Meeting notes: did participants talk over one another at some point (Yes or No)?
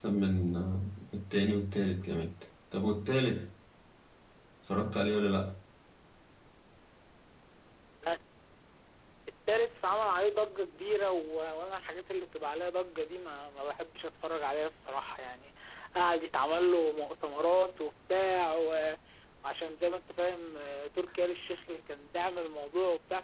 No